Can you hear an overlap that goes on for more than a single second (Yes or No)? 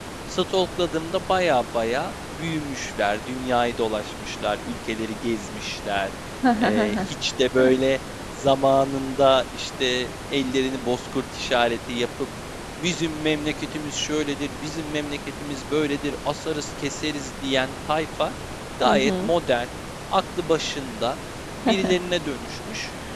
No